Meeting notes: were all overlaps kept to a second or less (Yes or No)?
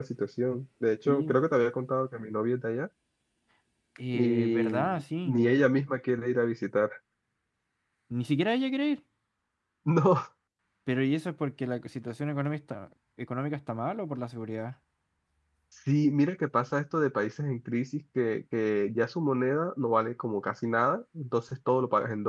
No